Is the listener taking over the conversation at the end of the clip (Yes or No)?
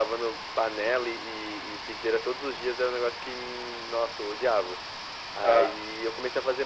No